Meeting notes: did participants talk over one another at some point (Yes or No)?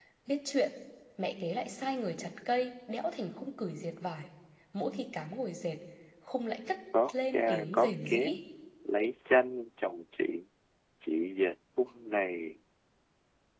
Yes